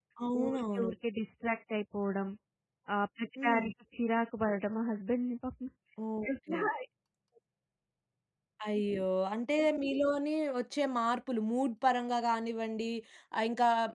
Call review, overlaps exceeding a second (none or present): none